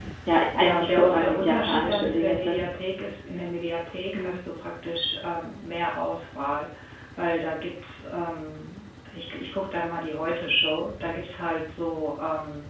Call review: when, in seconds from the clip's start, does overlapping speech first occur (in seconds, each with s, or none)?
0.6 s